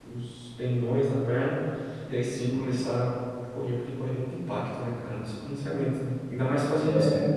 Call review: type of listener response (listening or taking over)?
listening